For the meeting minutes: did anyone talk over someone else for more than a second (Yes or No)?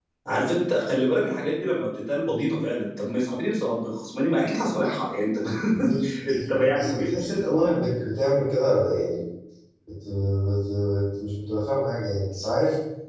Yes